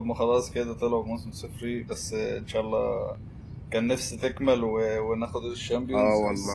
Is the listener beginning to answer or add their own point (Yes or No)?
Yes